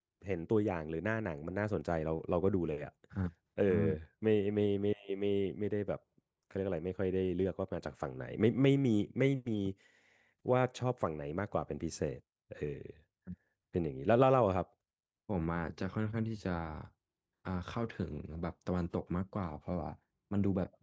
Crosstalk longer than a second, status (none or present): none